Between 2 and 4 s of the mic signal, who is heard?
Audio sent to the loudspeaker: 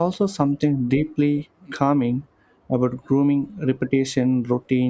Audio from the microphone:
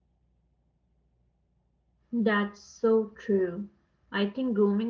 user only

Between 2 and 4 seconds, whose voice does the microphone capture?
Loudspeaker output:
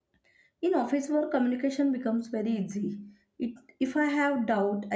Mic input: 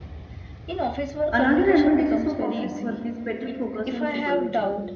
both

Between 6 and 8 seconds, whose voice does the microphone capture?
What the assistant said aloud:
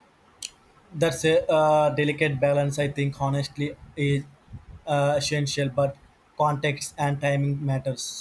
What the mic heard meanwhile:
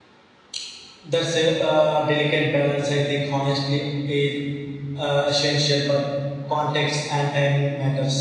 echo only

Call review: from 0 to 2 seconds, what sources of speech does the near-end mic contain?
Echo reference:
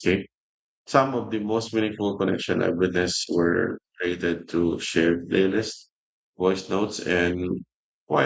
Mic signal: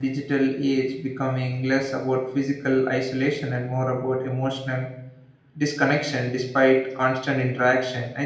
user only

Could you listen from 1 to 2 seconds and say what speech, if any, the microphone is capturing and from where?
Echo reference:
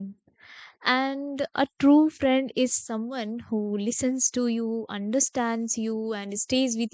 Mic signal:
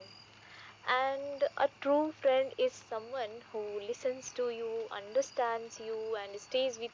echo only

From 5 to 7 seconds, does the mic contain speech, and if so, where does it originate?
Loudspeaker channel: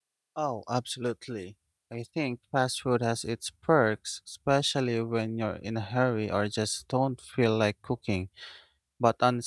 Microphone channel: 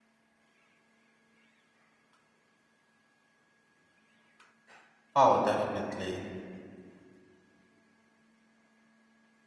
user only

